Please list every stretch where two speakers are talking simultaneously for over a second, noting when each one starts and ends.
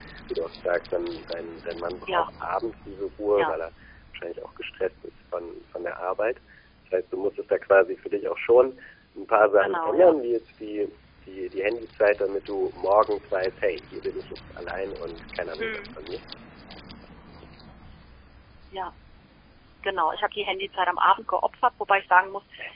none

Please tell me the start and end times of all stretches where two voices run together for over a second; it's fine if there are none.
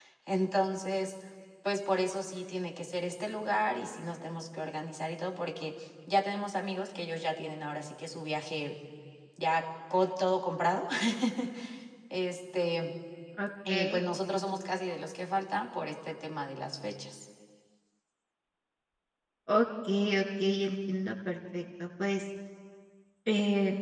none

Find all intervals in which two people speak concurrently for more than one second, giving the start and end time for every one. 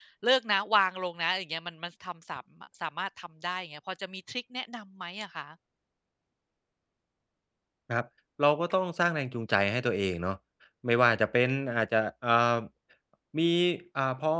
none

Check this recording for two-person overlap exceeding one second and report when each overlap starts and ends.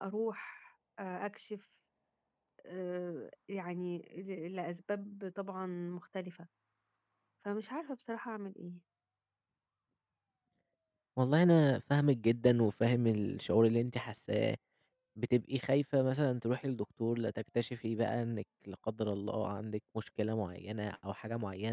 none

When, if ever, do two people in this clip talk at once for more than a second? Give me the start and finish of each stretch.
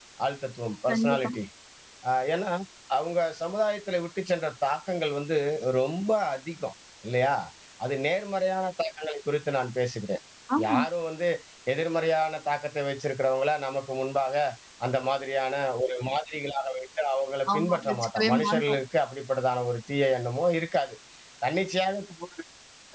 17.5-18.8

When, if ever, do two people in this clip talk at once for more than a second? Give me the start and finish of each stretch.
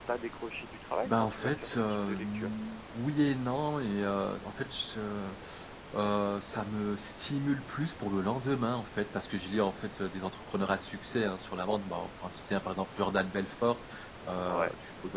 1.0-2.5

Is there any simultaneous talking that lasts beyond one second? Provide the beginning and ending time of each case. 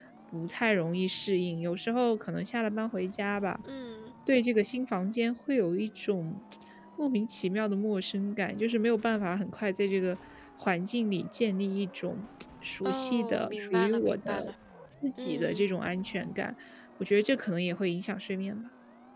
12.8-14.4

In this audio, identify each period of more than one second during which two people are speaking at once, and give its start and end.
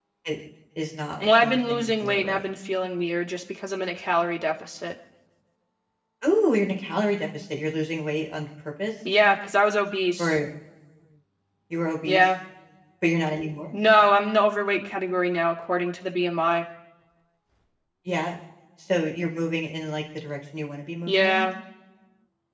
1.2-2.4

